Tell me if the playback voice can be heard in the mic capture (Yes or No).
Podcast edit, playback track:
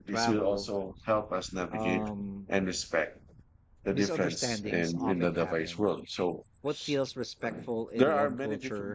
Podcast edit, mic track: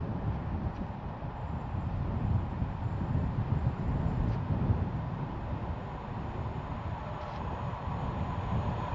No